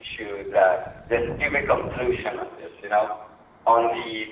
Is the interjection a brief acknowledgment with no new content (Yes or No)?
Yes